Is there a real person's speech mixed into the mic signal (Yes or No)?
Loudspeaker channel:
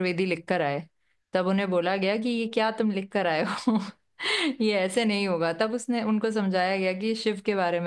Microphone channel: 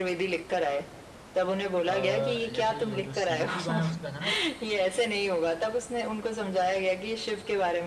Yes